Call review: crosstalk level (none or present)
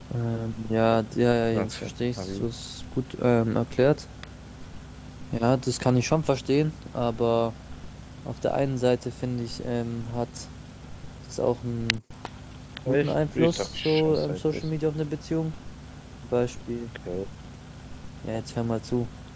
present